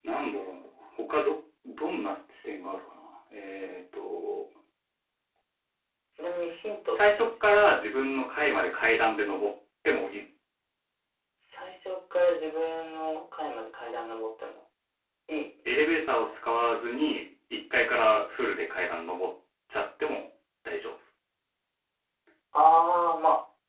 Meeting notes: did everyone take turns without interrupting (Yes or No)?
Yes